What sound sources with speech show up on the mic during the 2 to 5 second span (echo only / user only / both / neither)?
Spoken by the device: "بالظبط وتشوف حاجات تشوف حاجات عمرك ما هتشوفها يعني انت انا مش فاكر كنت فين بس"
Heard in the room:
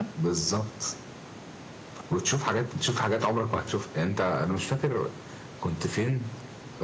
echo only